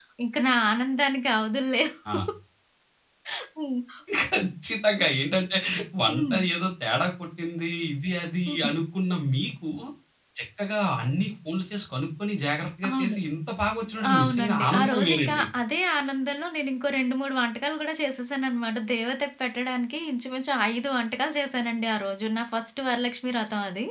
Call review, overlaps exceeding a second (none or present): present